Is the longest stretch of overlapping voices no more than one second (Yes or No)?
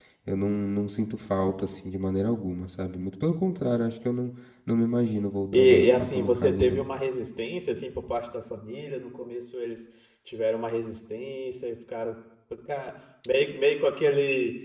No